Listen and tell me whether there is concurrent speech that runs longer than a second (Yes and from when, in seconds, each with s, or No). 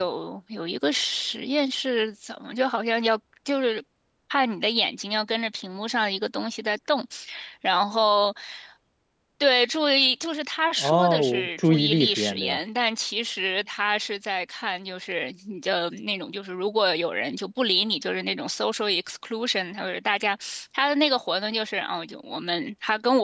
Yes, from 10.8 s